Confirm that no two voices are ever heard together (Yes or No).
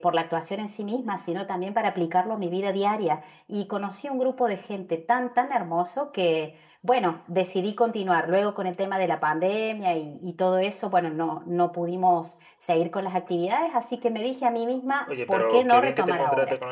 No